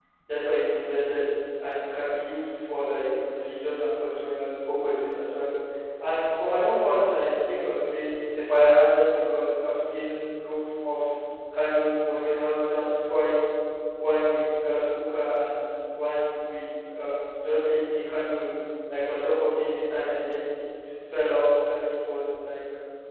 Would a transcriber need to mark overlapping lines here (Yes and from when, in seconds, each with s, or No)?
No